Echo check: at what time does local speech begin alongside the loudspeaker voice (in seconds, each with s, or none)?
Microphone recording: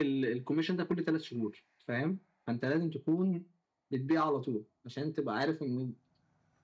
none